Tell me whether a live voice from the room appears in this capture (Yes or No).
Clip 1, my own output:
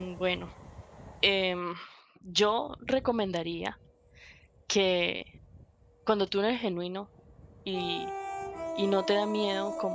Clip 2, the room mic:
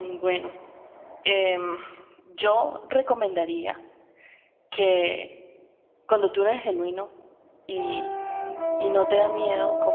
No